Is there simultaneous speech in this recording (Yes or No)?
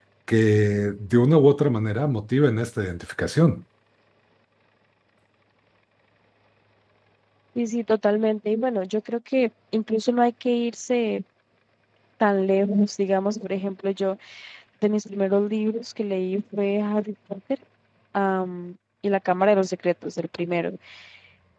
No